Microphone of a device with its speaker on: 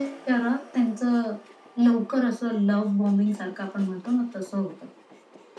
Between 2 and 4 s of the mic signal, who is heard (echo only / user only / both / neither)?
echo only